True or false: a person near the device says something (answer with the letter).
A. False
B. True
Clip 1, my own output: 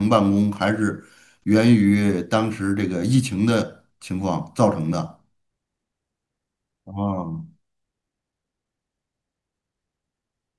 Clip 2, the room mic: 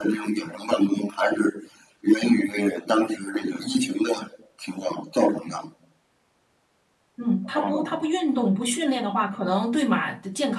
B